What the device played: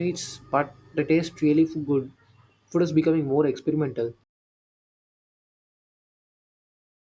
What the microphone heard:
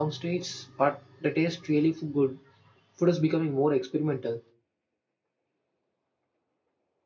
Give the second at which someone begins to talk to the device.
none

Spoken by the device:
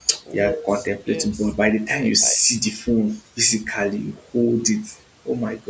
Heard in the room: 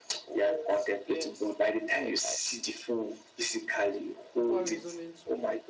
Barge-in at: 4.3 s

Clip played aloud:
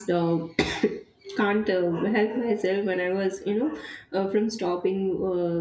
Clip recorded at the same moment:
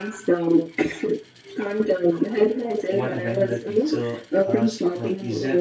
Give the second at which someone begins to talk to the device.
2.9 s

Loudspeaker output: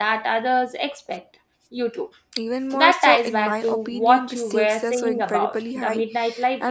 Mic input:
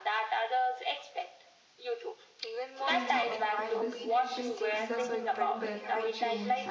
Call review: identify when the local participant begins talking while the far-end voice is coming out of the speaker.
2.8 s

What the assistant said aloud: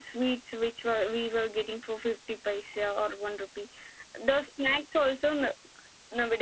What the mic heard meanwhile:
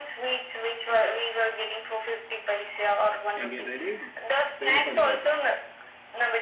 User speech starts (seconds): 3.4 s

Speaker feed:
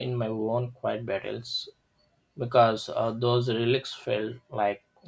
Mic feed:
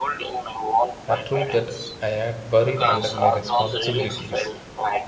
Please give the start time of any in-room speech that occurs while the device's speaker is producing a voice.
1.1 s

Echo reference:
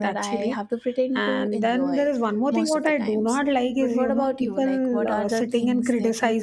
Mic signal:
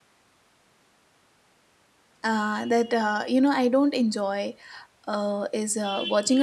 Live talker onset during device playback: 2.2 s

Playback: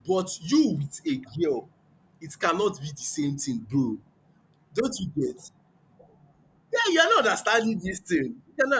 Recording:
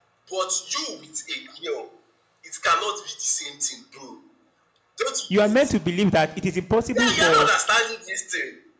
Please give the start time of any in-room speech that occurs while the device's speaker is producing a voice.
5.3 s

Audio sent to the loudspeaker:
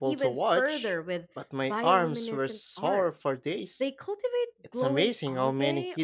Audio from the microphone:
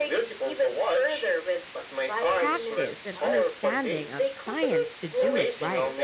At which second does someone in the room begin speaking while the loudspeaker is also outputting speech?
2.4 s

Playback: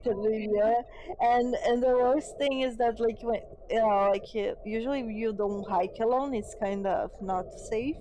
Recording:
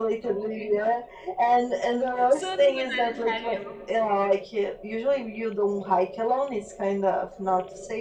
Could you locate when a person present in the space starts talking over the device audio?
2.3 s

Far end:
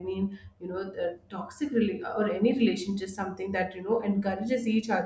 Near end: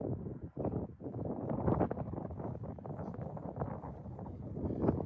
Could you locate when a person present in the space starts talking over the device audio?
none

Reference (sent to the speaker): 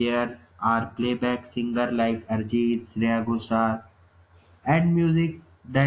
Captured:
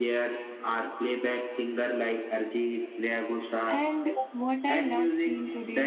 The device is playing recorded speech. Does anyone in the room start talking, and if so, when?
3.7 s

